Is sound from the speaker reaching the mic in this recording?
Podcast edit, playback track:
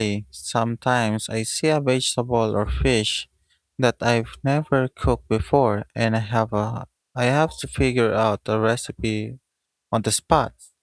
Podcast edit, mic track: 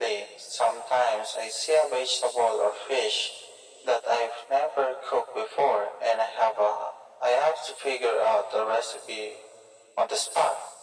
Yes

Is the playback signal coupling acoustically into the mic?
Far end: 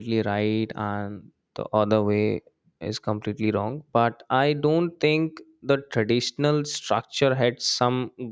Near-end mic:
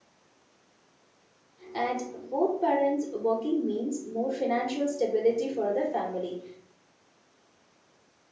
No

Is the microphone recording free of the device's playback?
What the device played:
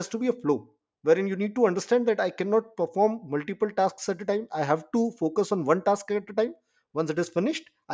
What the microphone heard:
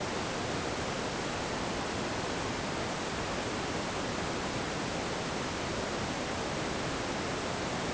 Yes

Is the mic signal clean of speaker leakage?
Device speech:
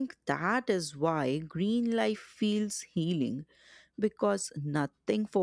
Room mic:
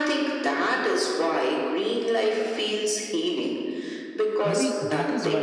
No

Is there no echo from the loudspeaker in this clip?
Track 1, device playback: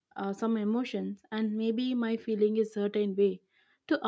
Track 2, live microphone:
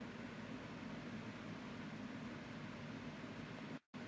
Yes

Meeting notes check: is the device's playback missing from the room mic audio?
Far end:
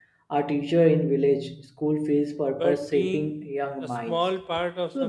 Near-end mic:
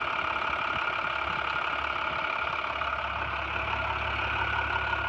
Yes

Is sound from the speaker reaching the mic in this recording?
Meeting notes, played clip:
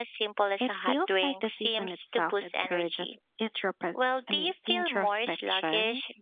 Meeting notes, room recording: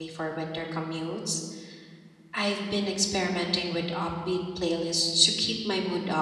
No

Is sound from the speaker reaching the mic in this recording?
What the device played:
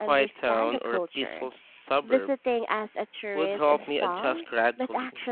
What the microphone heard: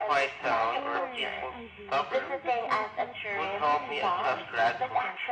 Yes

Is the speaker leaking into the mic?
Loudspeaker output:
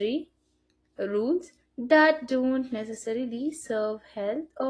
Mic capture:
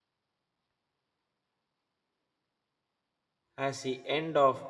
No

